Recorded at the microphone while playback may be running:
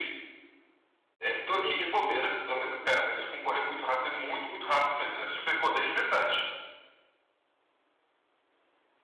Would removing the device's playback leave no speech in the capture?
No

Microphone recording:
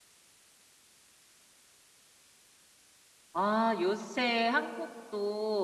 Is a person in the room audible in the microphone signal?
Yes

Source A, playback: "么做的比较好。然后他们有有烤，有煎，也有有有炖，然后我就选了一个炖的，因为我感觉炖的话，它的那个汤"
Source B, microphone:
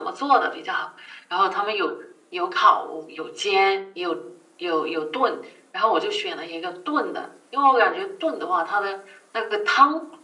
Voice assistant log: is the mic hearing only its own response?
Yes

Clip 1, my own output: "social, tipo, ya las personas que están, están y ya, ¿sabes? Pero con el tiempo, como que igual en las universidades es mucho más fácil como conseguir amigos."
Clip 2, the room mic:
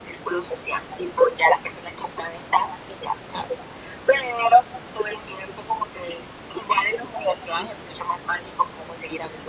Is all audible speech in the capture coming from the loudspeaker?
Yes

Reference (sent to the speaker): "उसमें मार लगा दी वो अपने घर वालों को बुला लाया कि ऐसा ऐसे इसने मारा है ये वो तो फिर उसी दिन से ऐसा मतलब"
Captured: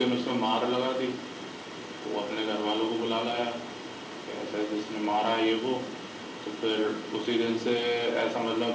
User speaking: No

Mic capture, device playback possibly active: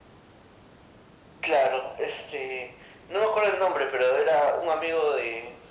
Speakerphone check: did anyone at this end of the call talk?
No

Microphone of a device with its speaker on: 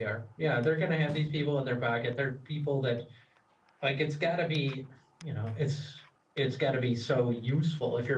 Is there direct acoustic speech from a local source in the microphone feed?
Yes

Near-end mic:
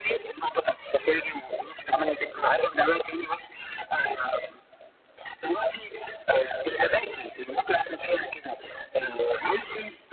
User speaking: No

